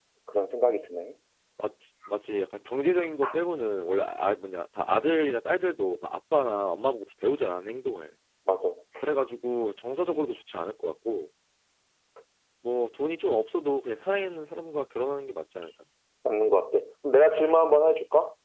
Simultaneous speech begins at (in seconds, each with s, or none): none